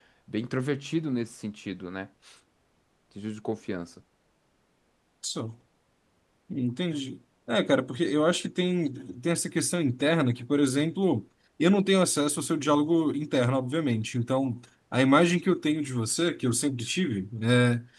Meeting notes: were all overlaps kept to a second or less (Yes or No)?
Yes